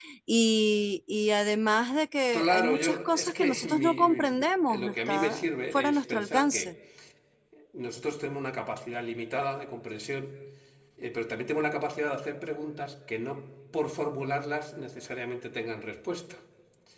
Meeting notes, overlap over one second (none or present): present